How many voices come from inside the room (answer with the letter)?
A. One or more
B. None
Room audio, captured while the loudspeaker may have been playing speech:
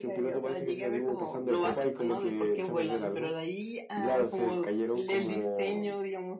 B